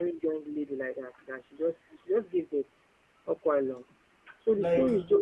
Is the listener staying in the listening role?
Yes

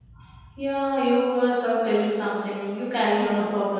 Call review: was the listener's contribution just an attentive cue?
No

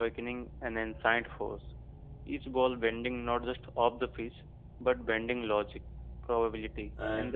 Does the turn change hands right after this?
No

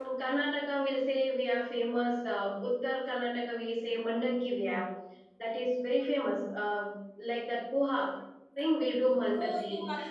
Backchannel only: No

